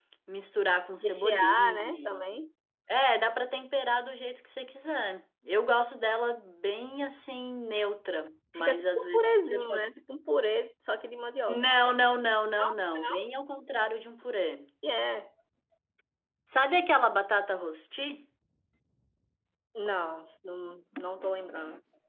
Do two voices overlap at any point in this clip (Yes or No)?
Yes